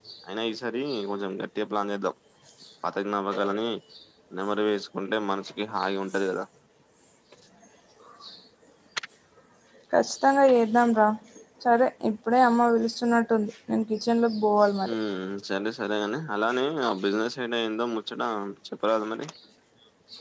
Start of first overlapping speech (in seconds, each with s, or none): none